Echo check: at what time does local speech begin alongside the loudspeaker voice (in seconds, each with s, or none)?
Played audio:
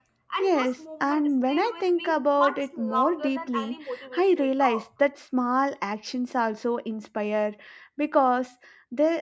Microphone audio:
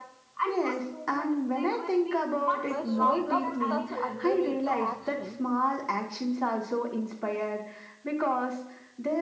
2.7 s